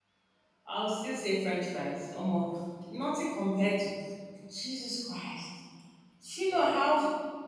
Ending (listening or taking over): listening